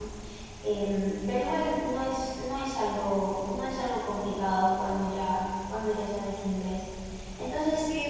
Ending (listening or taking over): taking over